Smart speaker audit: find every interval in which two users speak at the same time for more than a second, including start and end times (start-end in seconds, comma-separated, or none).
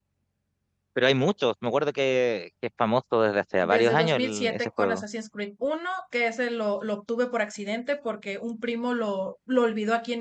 3.6-5.0